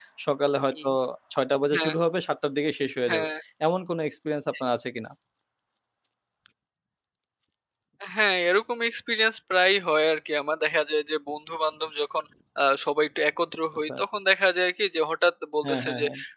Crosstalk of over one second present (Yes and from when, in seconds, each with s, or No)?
No